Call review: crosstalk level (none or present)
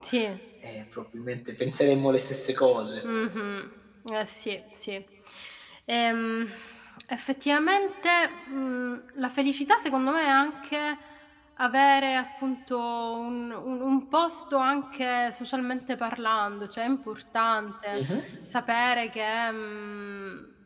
none